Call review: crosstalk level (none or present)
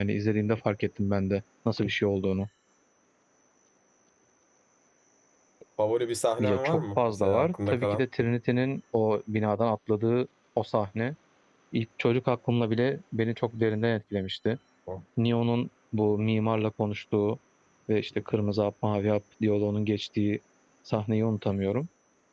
present